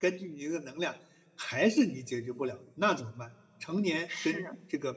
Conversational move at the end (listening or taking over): listening